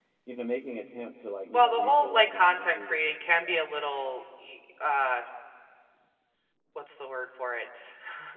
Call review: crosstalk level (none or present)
present